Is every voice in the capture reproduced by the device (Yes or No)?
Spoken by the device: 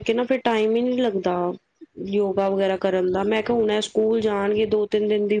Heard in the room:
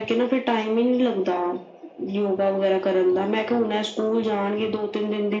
Yes